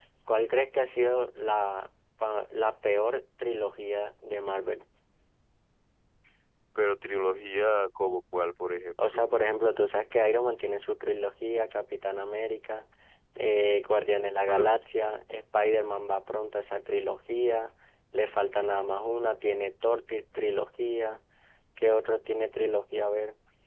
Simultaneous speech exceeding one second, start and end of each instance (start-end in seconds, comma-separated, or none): none